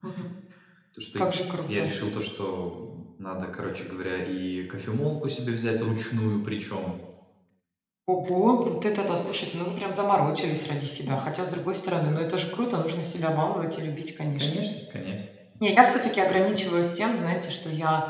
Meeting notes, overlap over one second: none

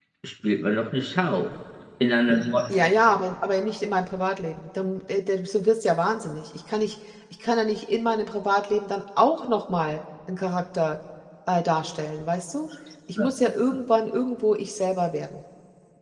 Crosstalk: none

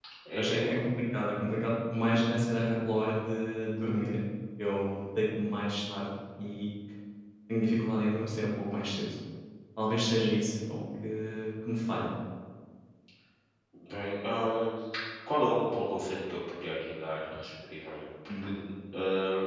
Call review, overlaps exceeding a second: none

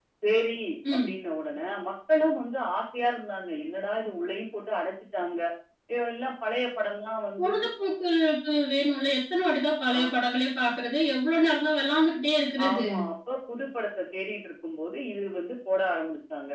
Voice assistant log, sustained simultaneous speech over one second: none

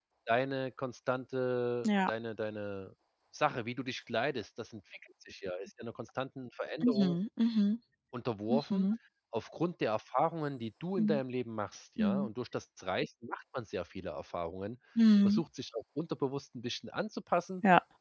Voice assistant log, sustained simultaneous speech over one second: none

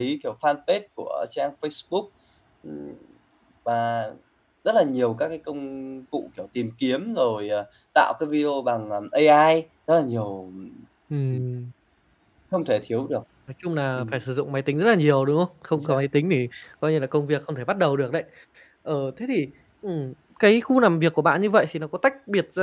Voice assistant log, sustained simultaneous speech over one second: none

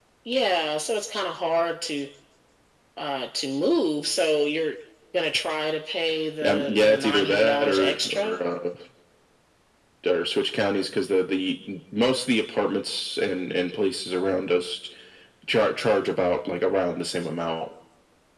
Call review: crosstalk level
present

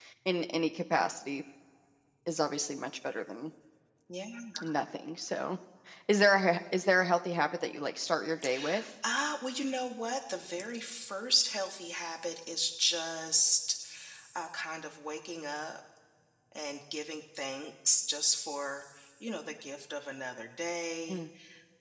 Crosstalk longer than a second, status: none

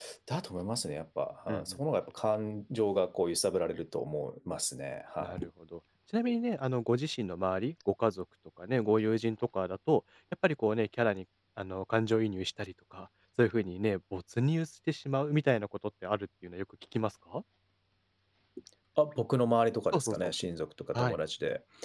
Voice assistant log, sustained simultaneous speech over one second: none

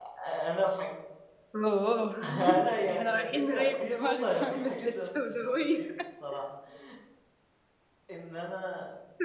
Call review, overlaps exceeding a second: present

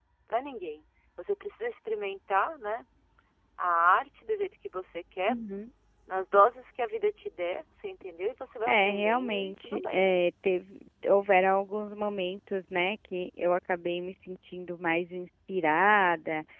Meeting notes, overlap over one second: present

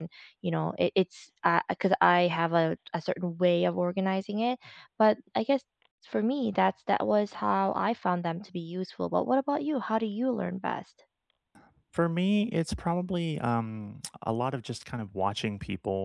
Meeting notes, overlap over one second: none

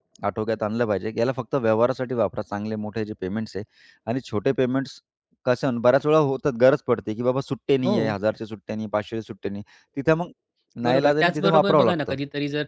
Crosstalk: present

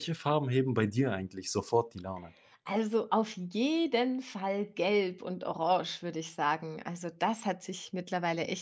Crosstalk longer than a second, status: none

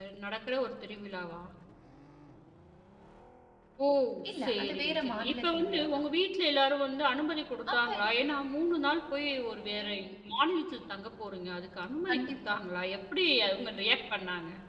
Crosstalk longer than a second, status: present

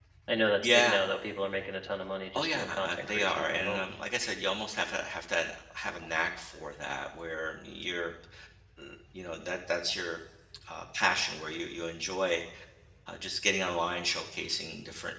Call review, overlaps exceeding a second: present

